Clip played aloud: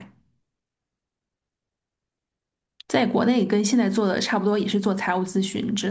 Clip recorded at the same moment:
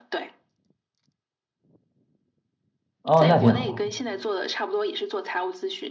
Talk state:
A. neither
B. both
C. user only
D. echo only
B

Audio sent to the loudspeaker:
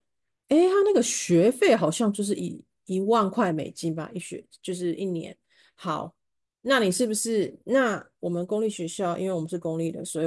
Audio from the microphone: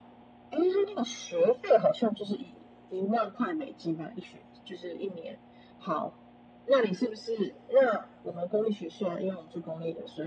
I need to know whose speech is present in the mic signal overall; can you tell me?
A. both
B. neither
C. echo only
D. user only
C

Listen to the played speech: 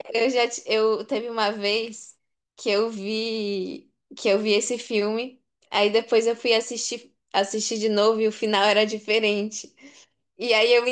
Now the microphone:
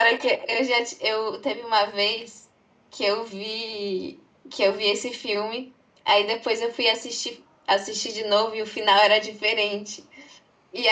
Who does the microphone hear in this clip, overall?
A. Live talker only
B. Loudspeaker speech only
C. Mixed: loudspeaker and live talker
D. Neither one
B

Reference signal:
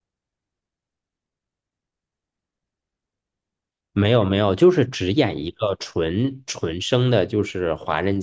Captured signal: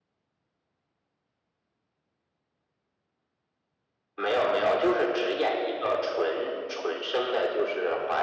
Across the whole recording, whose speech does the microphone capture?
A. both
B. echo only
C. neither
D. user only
B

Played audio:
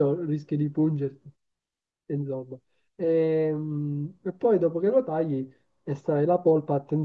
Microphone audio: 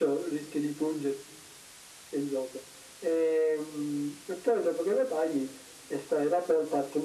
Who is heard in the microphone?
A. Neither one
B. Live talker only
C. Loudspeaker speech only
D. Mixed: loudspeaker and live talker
C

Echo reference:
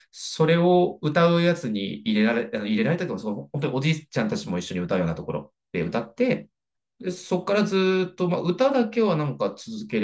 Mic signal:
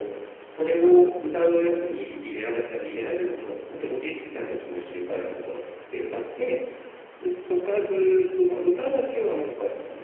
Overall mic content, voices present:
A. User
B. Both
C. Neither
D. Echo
D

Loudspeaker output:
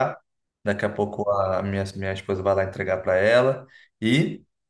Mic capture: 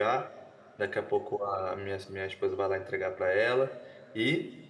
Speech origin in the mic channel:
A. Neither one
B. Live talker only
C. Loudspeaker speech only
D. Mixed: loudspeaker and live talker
C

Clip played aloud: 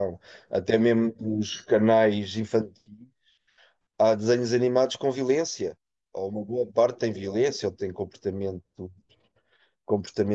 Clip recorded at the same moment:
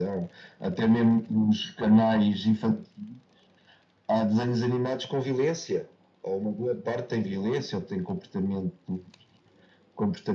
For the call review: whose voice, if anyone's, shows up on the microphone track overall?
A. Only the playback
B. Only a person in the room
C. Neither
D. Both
A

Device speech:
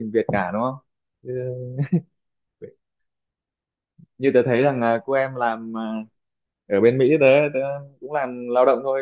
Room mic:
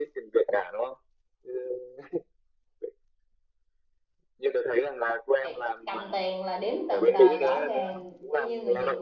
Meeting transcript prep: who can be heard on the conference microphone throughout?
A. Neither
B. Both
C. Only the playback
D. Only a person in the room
B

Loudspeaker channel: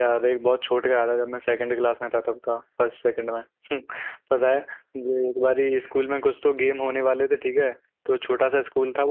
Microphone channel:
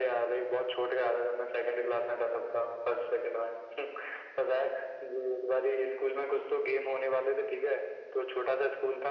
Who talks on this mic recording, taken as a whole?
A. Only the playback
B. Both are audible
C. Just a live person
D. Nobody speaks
A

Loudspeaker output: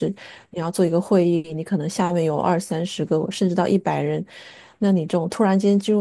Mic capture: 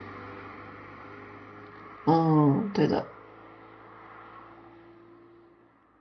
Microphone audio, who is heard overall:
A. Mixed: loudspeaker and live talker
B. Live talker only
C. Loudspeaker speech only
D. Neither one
B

